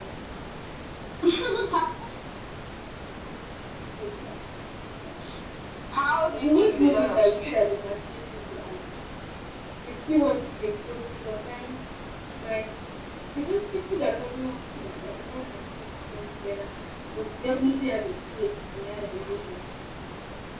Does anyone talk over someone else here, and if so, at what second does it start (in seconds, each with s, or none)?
6.3 s